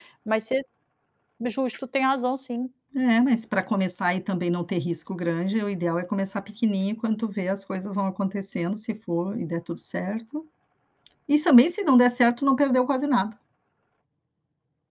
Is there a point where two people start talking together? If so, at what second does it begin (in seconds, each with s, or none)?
none